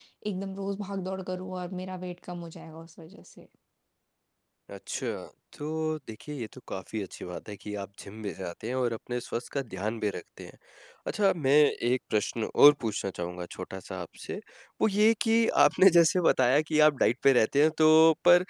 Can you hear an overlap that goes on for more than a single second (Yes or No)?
No